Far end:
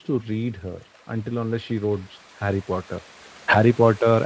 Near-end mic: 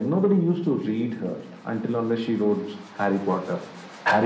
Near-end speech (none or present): none